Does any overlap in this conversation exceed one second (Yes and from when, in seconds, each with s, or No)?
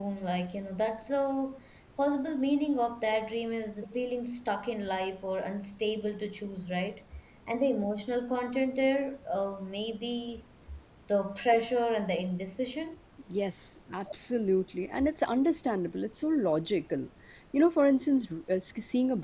No